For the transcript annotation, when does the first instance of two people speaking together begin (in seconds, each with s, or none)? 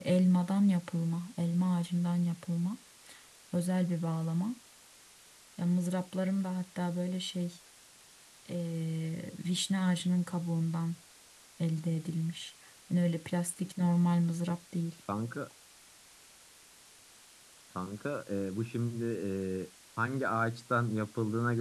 none